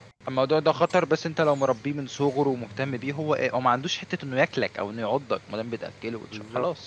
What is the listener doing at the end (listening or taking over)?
listening